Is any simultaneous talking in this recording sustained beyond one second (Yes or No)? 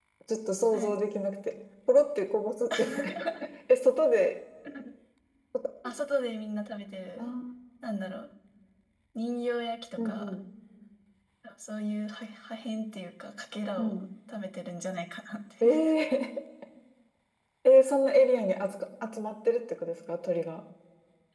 No